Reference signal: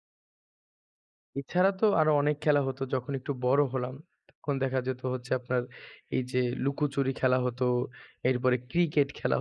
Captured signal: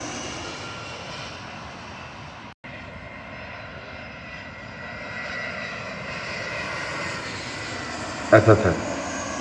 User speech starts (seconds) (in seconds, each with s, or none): 8.4 s